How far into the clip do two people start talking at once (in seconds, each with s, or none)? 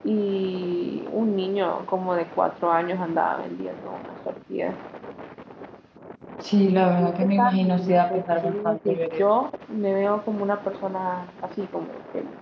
7.0 s